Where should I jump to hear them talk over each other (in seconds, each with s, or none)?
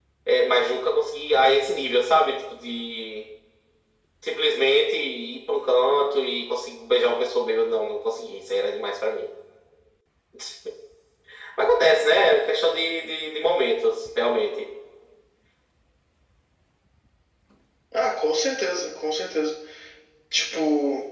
none